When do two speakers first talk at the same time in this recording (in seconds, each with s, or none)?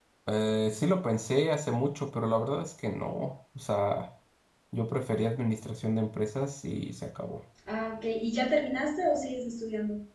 none